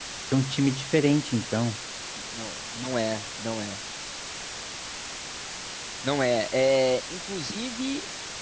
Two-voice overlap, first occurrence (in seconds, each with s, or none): none